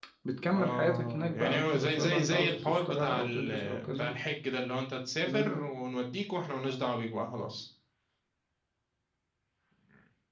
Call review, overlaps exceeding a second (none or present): present